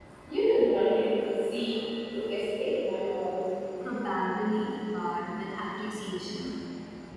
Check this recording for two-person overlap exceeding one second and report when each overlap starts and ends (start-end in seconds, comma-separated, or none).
none